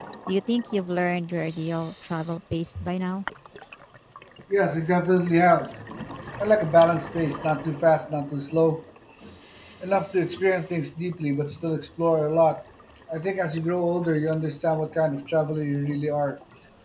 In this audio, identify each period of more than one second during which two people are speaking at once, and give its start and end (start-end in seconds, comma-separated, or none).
none